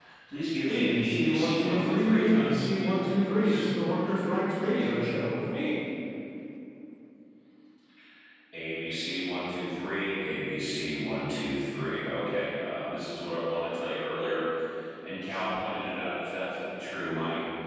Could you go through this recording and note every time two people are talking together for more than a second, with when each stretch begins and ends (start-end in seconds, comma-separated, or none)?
0.7-3.5